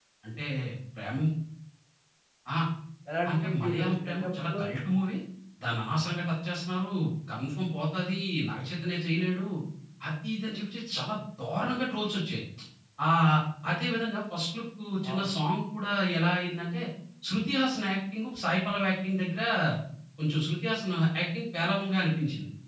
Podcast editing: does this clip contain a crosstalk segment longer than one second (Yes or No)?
Yes